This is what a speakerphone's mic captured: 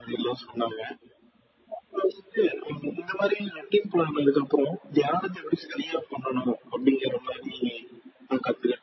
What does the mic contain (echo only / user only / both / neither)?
echo only